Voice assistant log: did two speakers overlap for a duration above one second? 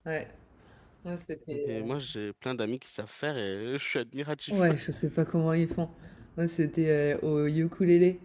No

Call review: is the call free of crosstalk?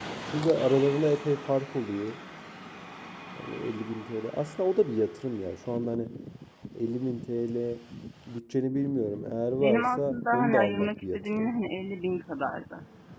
No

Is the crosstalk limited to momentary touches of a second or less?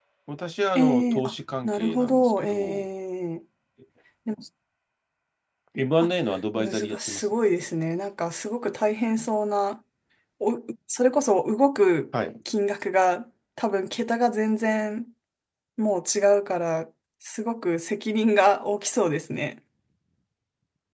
No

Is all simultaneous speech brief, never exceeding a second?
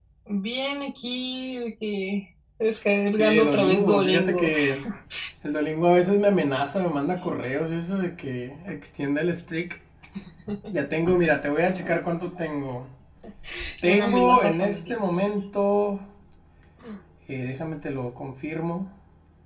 No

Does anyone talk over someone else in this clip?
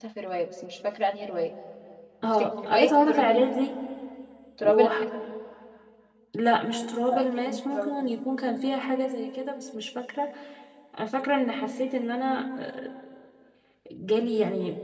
Yes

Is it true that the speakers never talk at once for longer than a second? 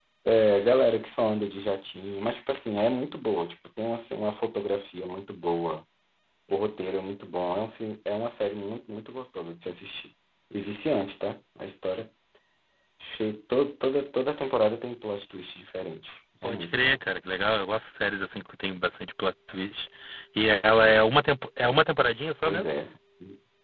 Yes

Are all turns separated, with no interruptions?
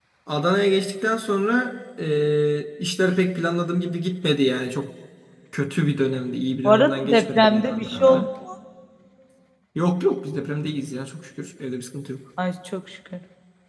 No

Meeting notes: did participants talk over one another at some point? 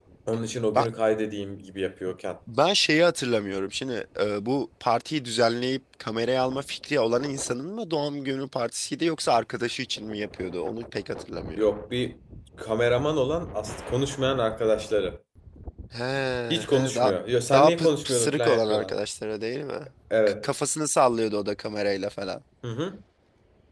Yes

